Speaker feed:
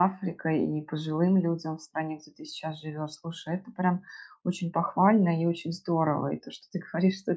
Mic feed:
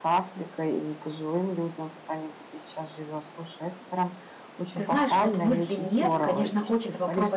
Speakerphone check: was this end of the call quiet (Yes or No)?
No